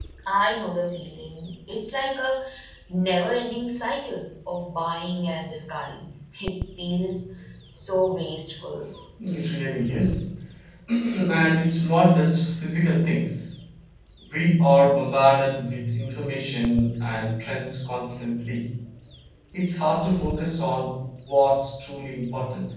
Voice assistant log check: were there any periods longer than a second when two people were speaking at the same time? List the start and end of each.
none

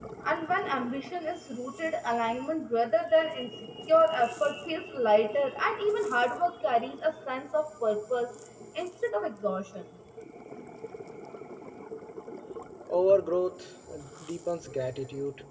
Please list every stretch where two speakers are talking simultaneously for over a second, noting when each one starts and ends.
none

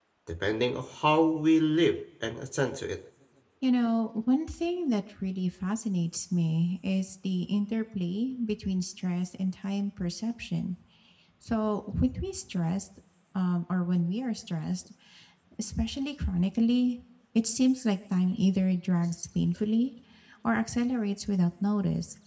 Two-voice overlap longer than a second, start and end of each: none

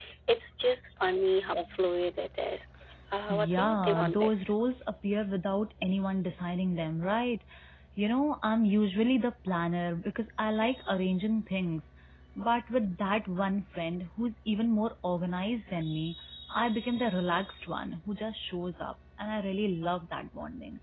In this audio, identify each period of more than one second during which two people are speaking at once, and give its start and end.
3.3-4.5

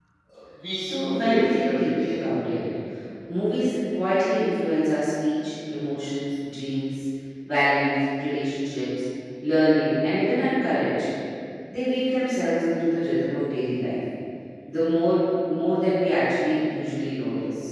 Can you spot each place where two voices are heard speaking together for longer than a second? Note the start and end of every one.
0.7-2.1

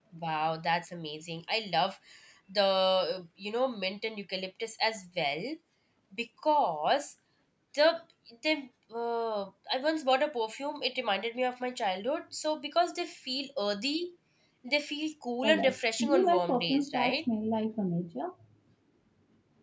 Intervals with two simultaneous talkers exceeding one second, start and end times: 15.4-17.2

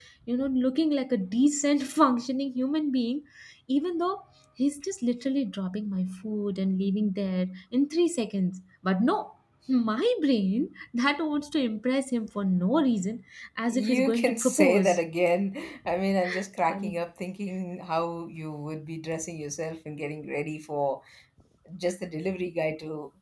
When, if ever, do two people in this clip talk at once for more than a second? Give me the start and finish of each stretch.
13.7-15.0

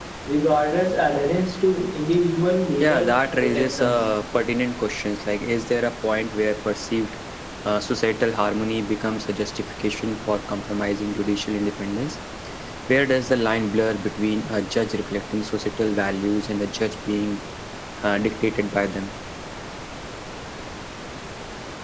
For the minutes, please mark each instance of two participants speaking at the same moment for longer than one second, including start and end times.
2.8-4.1

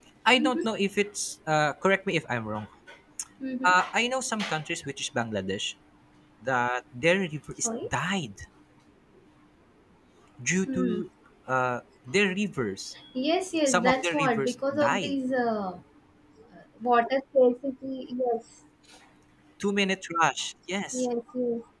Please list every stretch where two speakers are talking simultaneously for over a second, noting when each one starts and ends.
13.7-15.1

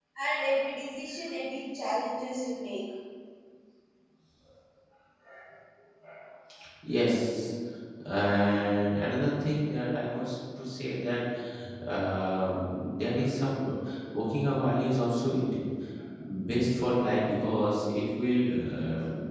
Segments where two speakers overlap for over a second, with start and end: none

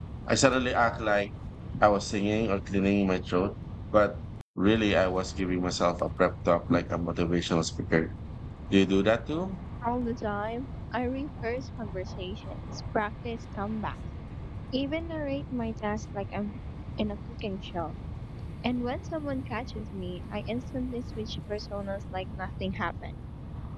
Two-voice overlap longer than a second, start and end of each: none

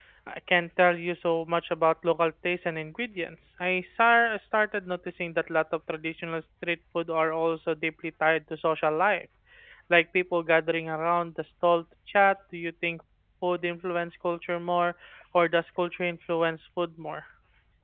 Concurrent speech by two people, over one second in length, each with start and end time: none

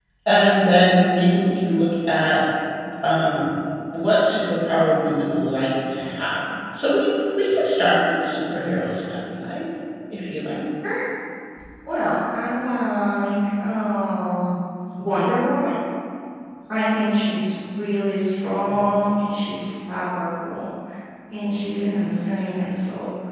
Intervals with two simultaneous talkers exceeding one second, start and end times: none

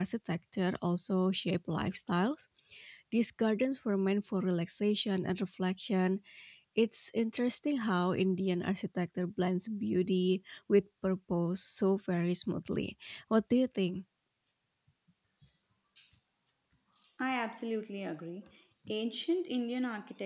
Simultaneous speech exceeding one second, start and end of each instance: none

